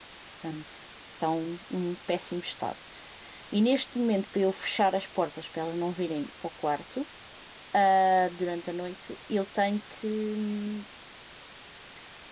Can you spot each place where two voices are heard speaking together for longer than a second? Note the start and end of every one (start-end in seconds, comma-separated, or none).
none